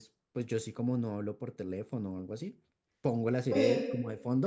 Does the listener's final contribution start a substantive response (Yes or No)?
Yes